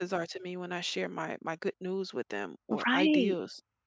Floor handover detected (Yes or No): Yes